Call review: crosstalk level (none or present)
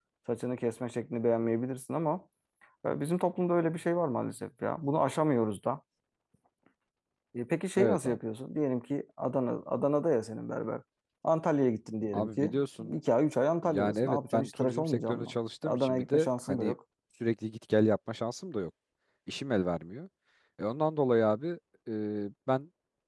present